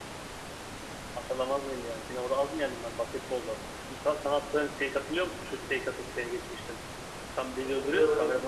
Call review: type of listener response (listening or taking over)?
taking over